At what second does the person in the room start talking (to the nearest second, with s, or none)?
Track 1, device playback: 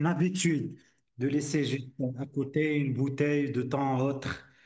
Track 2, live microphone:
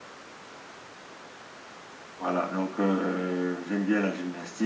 2 s